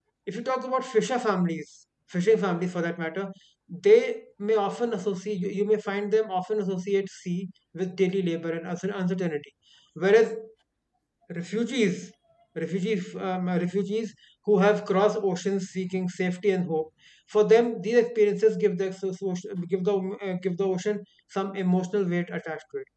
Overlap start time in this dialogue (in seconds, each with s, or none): none